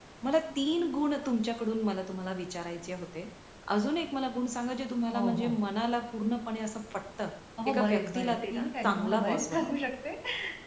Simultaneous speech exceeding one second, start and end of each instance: 7.7-9.7

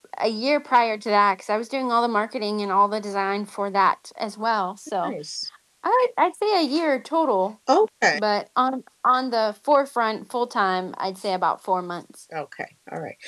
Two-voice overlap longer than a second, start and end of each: none

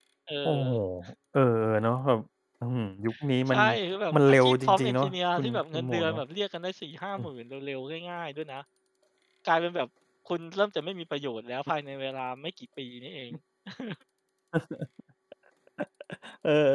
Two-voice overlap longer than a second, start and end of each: 4.1-6.2

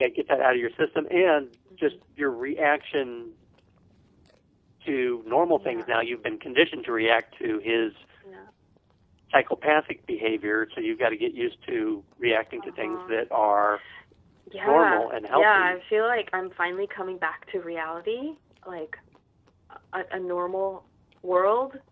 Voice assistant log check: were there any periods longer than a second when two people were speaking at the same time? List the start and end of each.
14.6-15.8

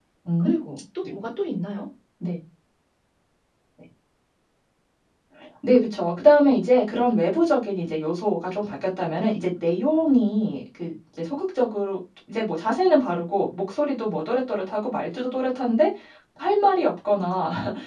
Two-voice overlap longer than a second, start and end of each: none

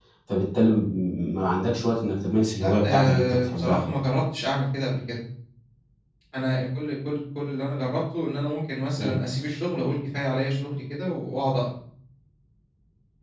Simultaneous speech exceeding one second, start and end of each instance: 2.6-3.8

